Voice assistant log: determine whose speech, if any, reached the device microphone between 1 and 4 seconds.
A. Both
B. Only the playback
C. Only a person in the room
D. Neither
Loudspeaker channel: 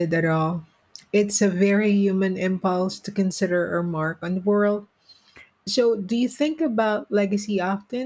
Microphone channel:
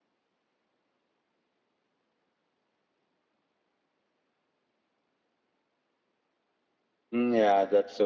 D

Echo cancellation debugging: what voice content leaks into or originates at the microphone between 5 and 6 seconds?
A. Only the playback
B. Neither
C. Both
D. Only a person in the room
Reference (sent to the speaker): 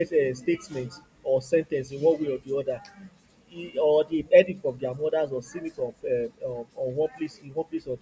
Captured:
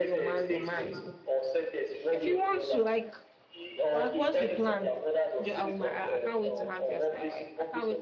C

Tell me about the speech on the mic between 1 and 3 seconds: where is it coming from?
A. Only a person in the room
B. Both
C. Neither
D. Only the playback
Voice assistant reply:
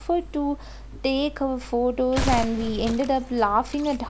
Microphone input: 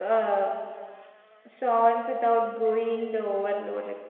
A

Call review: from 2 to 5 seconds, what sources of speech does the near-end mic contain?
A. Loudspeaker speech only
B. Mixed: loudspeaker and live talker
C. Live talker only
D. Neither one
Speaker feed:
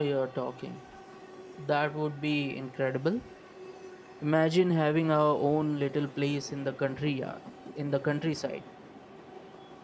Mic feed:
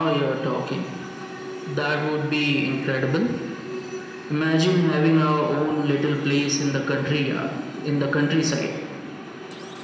A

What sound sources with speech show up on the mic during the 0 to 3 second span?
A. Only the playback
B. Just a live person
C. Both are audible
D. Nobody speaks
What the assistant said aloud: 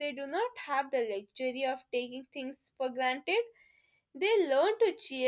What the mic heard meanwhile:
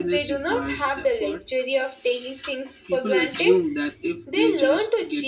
C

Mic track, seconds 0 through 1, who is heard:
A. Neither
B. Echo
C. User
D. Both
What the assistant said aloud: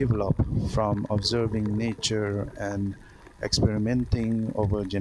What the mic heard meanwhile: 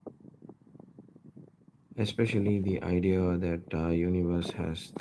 A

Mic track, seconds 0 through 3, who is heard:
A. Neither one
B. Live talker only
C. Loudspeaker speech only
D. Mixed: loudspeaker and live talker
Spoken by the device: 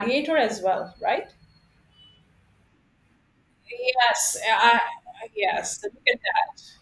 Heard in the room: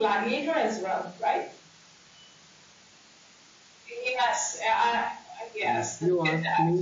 C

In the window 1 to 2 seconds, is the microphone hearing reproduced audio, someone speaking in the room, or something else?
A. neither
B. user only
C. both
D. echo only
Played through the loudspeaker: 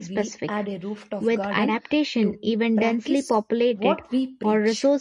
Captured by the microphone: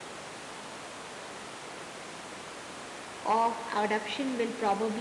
A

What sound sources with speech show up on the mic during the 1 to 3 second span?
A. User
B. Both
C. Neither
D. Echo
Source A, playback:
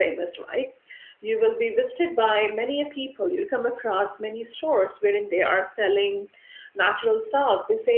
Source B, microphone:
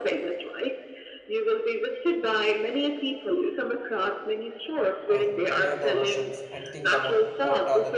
D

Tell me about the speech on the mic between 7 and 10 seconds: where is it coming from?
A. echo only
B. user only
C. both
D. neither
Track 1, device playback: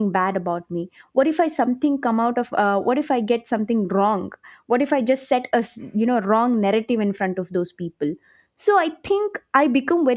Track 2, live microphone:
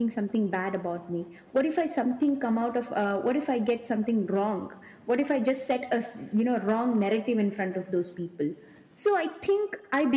A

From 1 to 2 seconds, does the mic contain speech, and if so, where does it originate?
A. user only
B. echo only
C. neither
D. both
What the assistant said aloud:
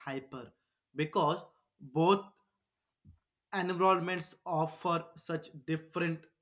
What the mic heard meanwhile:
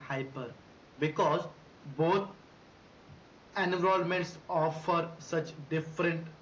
B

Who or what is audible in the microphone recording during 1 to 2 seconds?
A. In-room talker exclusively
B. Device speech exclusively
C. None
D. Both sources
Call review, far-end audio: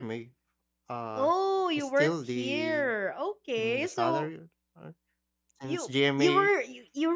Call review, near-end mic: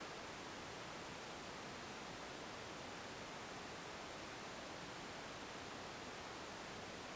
C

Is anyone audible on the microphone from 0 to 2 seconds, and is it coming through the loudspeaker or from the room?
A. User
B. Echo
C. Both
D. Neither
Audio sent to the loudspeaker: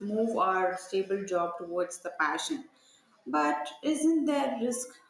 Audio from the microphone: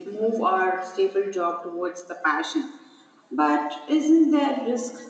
B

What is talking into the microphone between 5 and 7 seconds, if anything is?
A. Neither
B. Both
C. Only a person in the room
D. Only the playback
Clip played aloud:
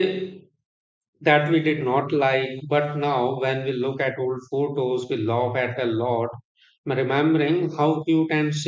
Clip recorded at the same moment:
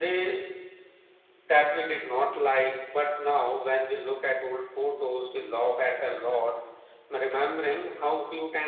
D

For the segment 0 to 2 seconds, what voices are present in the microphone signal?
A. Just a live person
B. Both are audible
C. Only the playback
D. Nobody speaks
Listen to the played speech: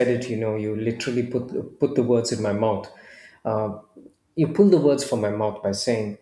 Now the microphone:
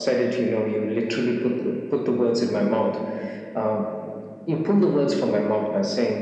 C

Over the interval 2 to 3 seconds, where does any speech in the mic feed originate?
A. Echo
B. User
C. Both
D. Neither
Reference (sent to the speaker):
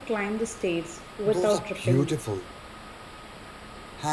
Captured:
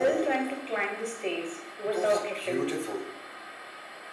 A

